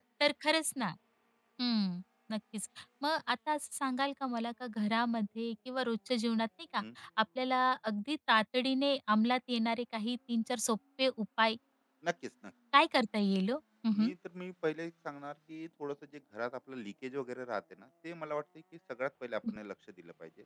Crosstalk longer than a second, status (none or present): none